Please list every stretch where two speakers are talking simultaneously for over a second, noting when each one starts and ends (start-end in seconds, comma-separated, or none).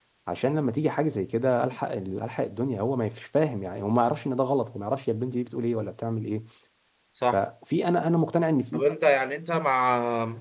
none